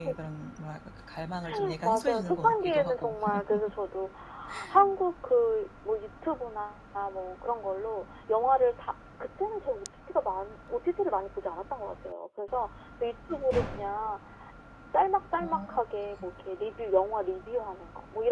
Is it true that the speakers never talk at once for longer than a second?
No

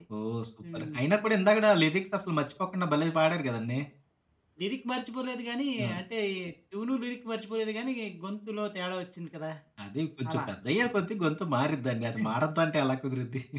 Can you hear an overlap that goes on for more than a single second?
No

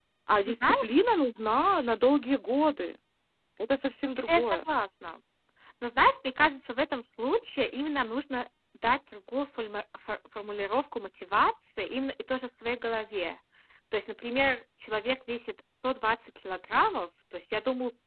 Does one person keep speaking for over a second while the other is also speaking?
No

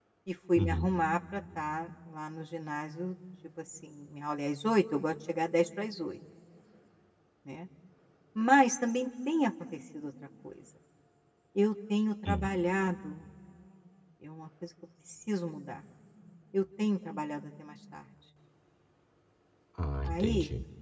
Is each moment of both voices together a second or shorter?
Yes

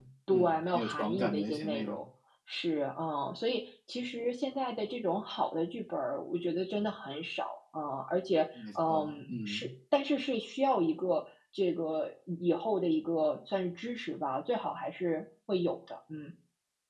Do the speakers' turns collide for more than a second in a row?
Yes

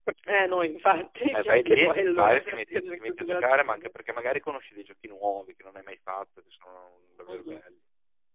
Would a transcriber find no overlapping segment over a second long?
No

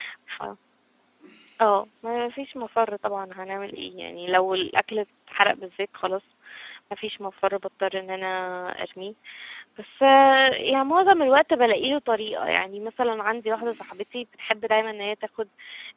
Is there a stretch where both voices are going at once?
No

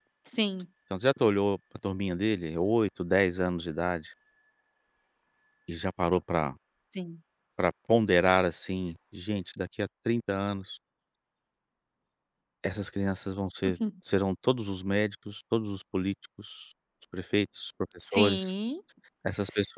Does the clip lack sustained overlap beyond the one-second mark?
Yes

